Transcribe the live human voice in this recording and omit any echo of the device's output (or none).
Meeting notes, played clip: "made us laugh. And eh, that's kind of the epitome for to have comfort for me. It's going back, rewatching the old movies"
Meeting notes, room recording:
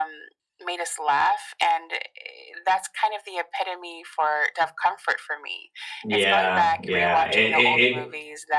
Yeah, yeah. It, it, it